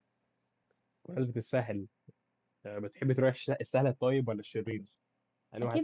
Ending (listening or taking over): taking over